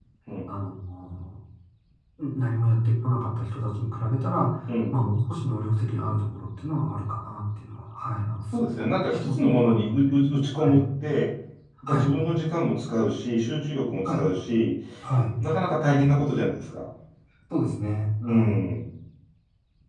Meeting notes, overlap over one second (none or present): present